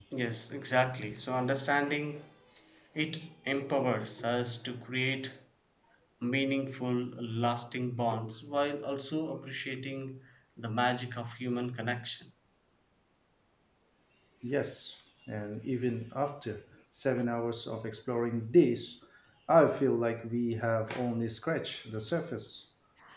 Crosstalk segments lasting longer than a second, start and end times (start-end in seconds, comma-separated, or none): none